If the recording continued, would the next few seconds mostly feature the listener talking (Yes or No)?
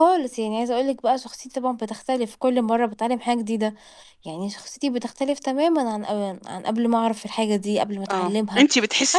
Yes